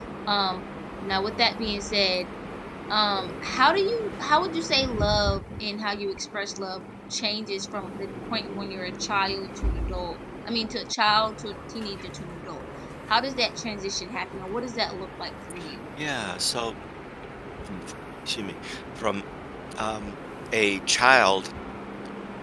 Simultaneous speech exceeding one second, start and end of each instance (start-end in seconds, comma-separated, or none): none